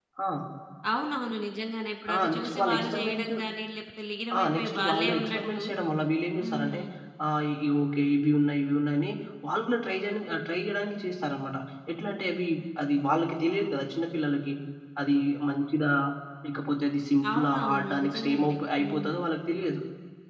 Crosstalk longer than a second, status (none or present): present